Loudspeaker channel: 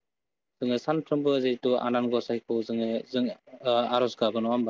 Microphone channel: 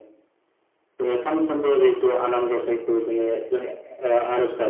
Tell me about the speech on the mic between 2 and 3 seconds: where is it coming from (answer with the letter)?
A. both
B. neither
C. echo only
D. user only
C